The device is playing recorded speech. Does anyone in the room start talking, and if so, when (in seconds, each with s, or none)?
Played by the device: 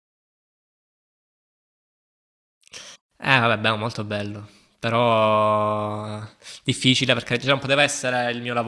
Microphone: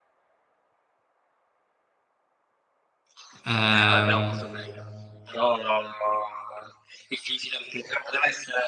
3.4 s